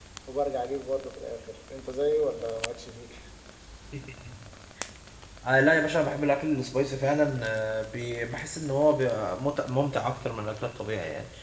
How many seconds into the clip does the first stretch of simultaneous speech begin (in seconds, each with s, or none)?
none